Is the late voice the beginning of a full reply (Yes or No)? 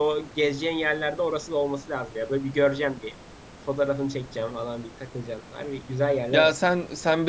Yes